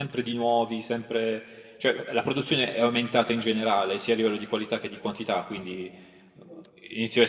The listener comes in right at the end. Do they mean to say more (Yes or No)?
No